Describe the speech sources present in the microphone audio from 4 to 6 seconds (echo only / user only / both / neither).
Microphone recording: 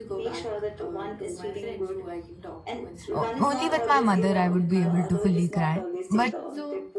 both